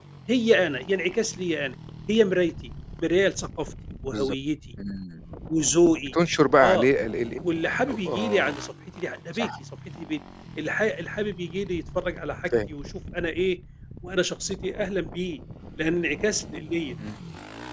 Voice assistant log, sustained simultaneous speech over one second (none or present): none